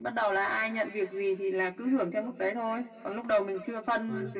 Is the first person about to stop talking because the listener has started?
No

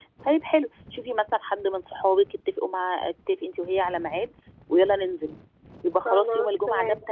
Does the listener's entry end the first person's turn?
No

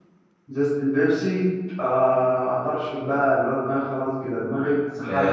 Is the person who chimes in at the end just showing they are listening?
No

